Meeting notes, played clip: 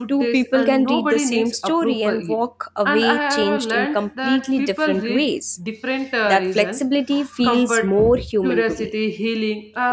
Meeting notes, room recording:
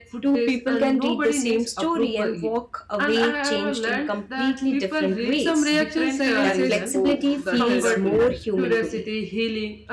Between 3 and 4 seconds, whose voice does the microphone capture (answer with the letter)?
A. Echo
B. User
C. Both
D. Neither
A